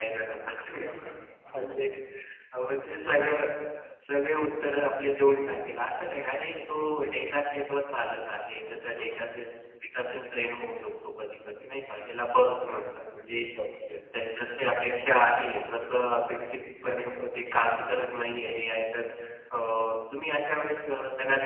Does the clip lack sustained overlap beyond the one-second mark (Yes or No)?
Yes